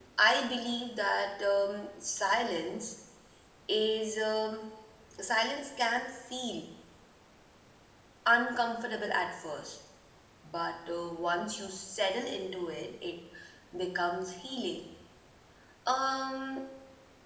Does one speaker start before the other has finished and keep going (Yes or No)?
No